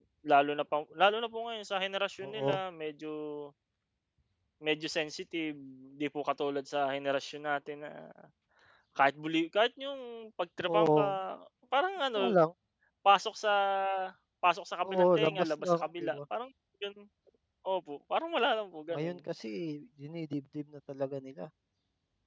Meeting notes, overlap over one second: present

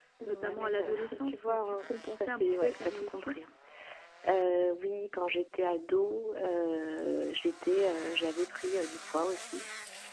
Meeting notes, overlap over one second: present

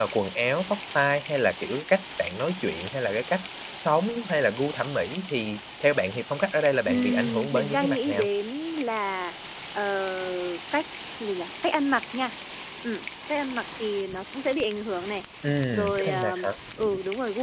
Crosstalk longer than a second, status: present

